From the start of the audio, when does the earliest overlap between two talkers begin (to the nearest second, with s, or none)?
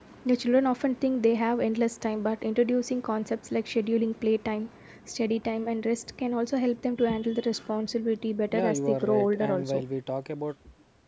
9 s